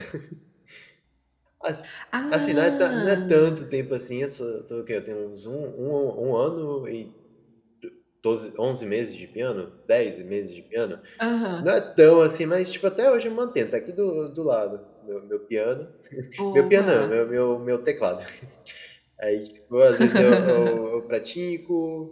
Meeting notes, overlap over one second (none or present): present